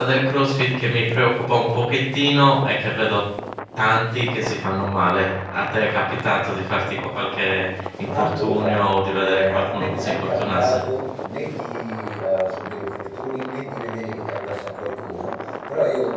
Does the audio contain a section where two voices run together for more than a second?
Yes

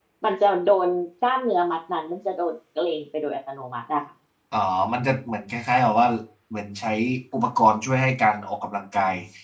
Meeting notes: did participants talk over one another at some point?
No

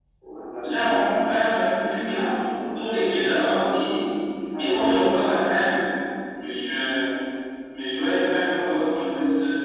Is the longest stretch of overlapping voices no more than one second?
No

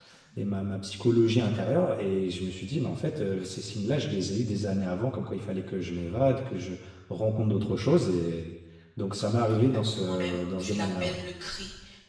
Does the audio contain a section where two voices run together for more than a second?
Yes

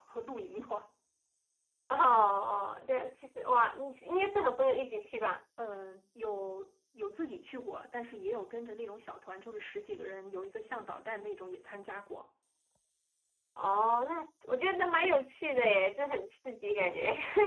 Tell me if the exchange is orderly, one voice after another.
Yes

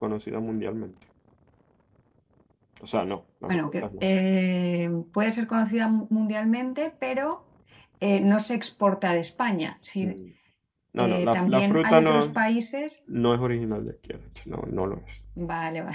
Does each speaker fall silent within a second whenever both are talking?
No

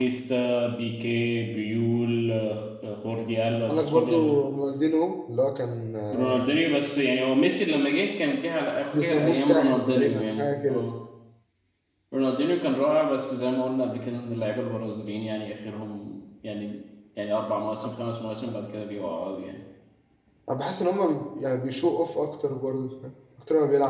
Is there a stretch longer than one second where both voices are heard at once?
Yes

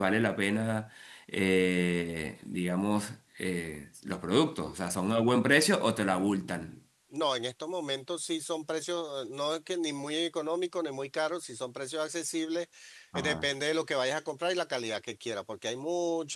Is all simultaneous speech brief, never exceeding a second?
Yes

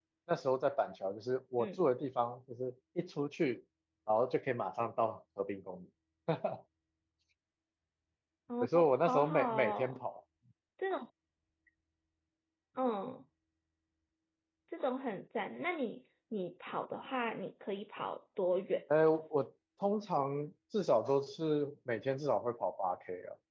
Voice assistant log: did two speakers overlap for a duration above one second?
Yes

